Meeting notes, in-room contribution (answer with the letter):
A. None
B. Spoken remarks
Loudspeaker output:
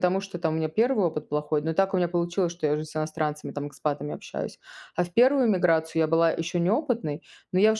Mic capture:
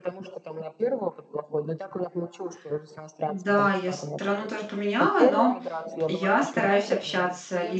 B